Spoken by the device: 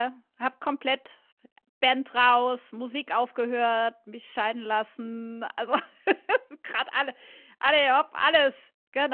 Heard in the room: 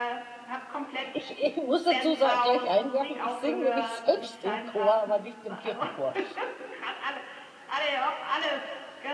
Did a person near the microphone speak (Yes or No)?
Yes